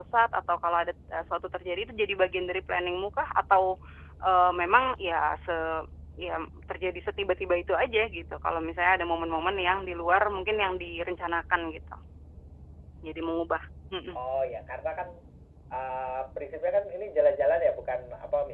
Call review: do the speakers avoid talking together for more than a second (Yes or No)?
Yes